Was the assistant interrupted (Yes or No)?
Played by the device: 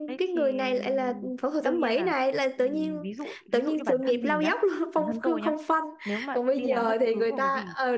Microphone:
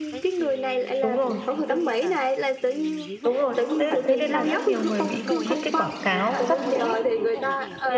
Yes